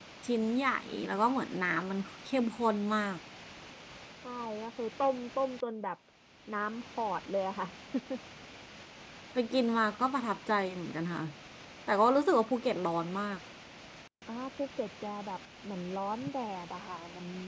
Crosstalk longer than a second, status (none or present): none